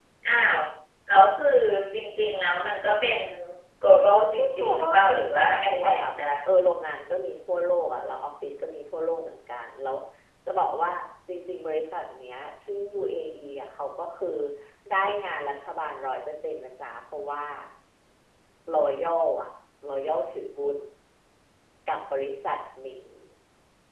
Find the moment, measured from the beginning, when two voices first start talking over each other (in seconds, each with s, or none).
4.4 s